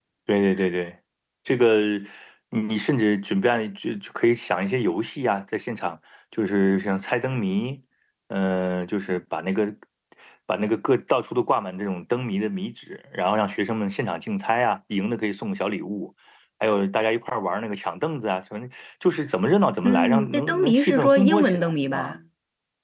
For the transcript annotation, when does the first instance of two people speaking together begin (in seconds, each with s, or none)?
19.8 s